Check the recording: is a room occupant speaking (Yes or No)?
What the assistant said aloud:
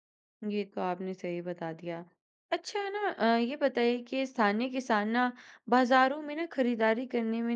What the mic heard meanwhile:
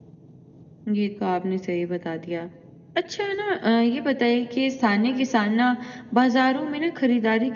No